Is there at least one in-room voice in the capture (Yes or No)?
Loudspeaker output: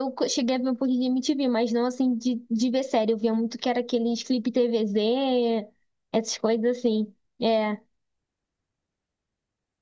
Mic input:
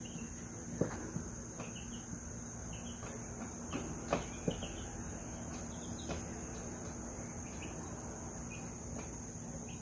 No